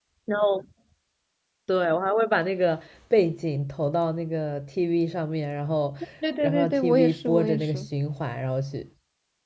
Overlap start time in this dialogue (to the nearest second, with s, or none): 6 s